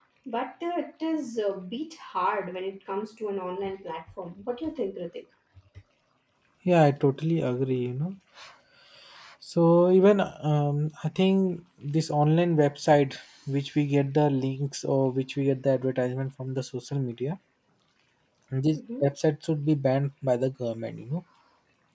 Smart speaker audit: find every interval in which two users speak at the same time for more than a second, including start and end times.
none

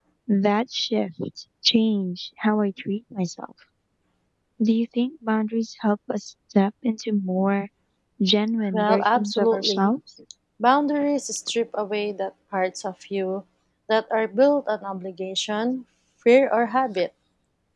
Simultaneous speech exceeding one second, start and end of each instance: 8.7-9.9

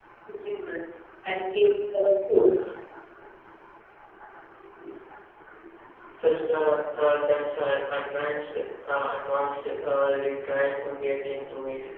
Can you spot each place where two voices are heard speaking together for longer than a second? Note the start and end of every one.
none

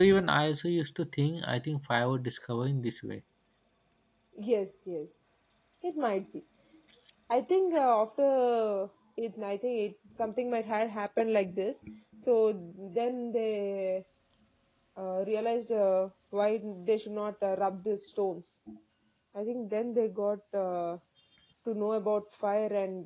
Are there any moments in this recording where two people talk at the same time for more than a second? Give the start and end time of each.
none

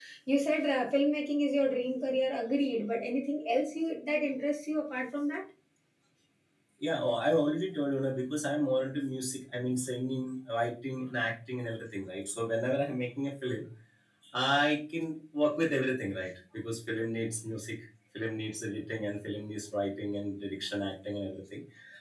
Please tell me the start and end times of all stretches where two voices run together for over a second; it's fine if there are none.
none

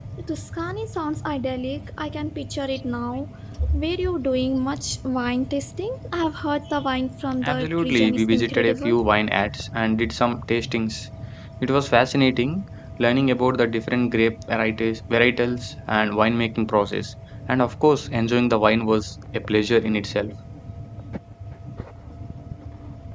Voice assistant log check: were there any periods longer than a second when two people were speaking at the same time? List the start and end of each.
7.4-9.0

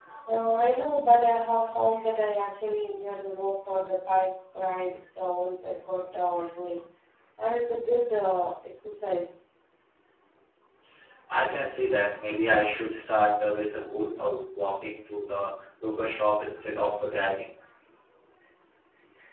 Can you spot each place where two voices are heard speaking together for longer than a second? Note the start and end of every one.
none

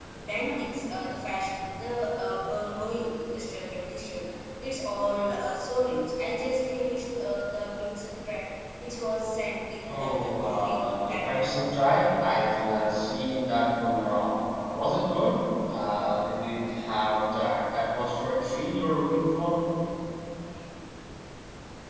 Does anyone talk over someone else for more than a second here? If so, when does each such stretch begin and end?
9.9-11.5

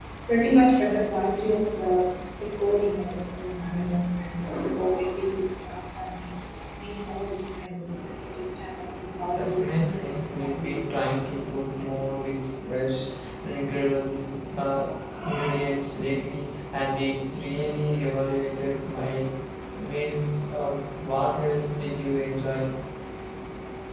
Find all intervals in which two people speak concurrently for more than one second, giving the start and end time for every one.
9.3-10.8

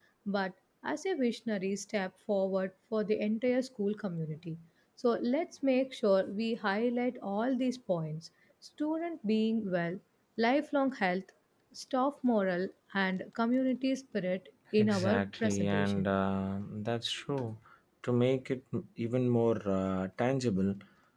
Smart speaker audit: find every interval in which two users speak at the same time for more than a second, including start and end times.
14.8-16.1

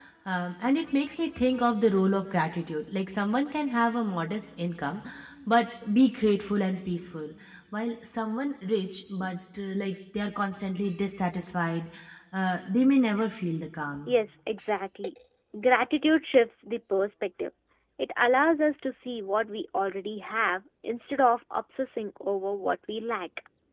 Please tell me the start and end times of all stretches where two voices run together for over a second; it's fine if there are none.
none

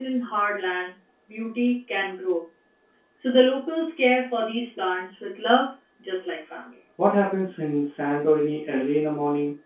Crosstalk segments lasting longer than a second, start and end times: none

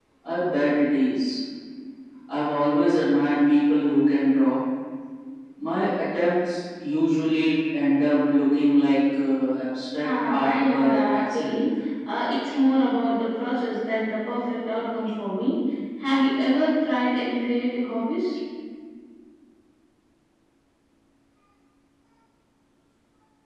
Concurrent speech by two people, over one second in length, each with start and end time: 10.0-11.6

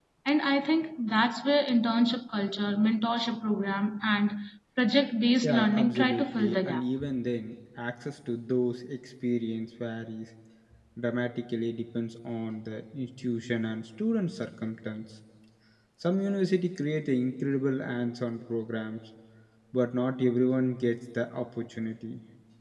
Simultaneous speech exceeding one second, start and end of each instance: 5.4-6.8

